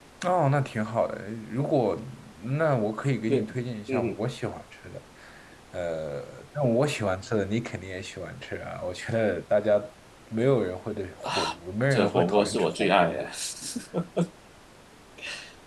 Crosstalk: present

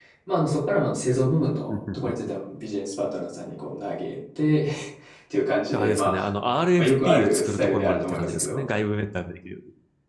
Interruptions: present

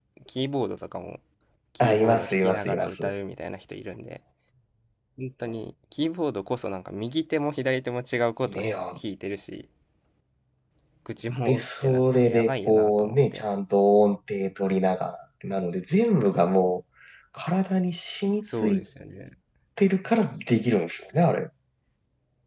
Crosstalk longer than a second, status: present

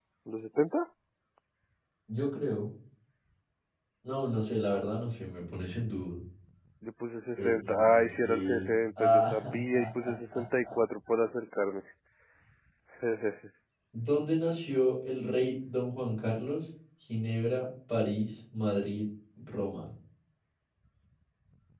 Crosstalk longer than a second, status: present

